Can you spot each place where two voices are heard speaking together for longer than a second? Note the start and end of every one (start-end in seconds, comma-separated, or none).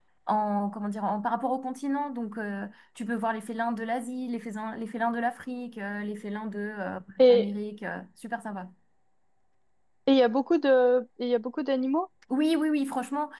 none